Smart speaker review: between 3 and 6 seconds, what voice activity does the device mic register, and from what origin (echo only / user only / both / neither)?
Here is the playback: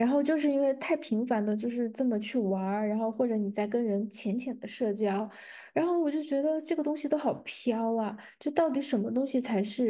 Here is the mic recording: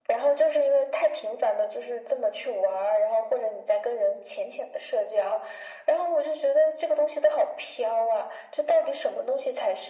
echo only